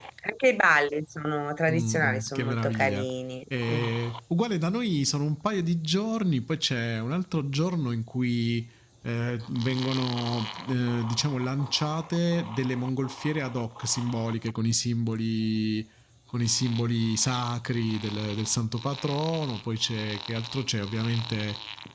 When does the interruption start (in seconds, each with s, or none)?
1.7 s